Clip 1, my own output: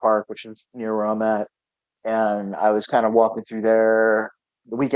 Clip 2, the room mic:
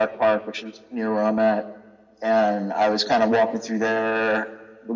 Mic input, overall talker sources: echo only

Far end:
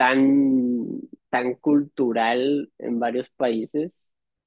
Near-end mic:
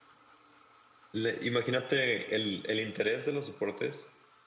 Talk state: user only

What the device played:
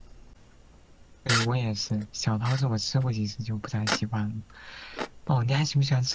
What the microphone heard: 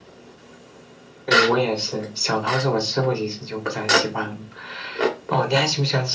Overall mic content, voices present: echo only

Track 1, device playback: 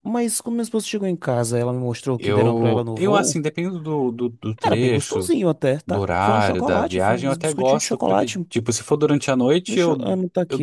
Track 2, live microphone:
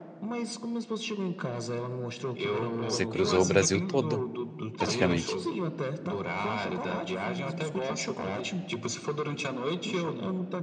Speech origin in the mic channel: both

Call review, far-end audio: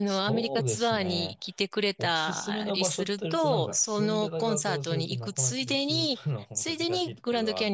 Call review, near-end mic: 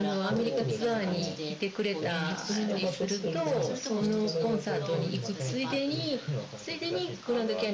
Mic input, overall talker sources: both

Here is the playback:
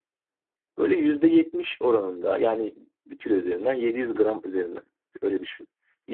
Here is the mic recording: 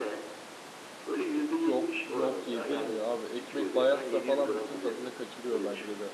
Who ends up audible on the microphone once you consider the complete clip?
both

